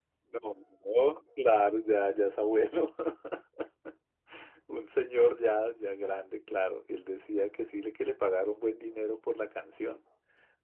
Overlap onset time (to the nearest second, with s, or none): none